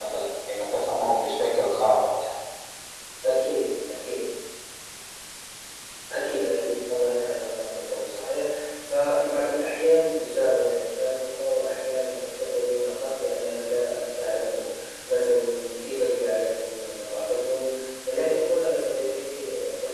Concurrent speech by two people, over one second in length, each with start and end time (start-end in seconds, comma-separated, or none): none